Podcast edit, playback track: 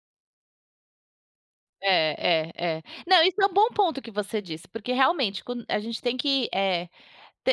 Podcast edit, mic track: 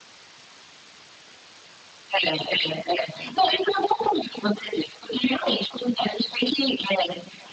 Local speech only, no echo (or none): none